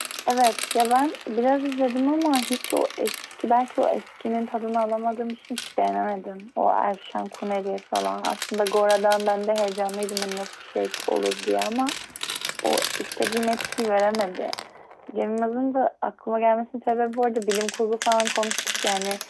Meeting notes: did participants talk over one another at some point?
No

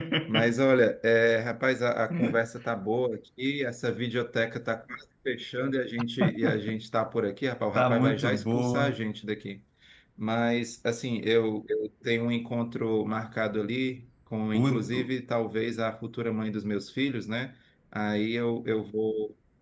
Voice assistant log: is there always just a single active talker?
No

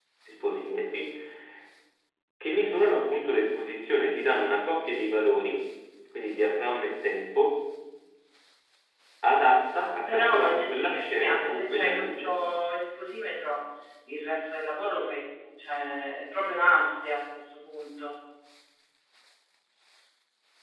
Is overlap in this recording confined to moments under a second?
No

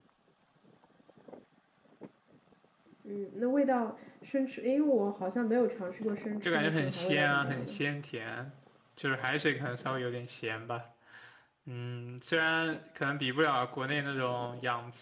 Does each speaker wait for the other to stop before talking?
No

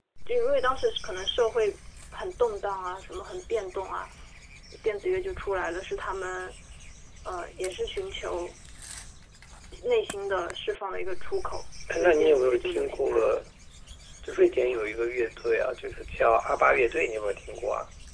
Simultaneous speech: Yes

